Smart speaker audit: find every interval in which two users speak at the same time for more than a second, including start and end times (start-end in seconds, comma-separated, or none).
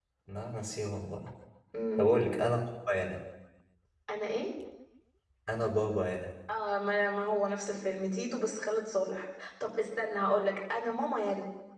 none